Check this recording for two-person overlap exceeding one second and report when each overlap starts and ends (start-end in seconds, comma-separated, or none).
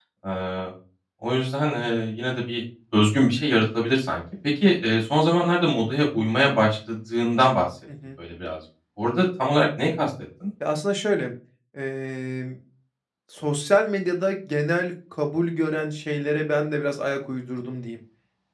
none